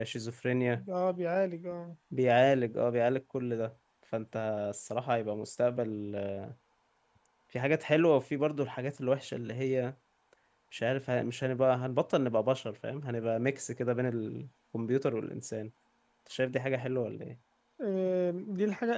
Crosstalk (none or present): none